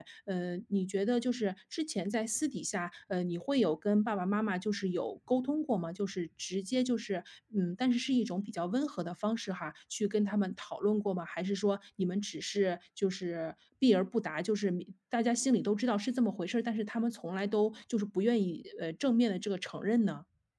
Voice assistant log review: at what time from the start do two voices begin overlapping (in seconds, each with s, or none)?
none